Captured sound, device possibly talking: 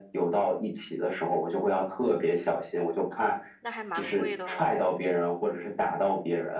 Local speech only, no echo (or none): 那还蛮贵的哦。